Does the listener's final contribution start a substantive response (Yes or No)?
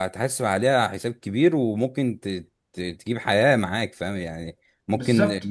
No